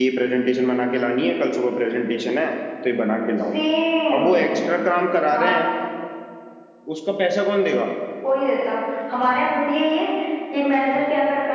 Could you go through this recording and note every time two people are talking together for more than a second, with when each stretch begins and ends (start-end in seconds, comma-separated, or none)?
none